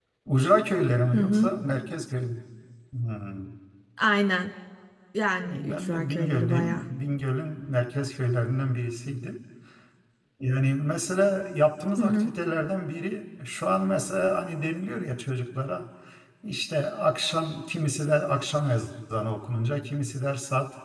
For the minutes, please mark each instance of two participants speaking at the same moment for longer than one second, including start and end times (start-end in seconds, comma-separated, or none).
5.4-6.8